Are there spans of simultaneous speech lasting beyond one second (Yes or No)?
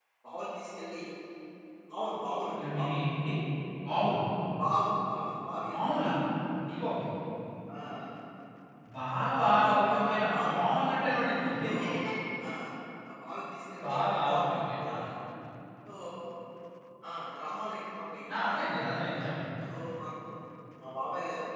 Yes